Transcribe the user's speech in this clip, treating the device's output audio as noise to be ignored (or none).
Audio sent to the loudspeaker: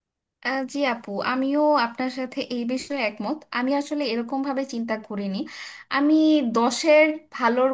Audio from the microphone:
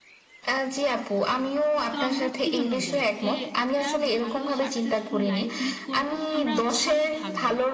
তো আমরা কি জন্য যাই যে একটা ভালো সাকসেসফুল লাইফ লিড করব আমরা ভালো থাকব